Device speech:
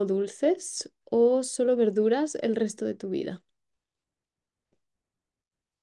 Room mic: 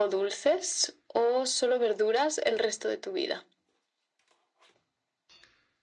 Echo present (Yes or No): Yes